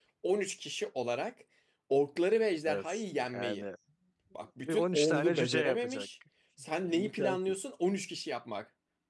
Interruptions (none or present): present